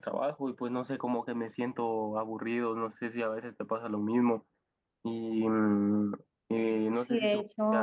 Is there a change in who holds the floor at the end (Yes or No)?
Yes